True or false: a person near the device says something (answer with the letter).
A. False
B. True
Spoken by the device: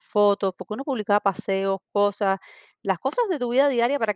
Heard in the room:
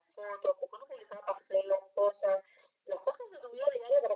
A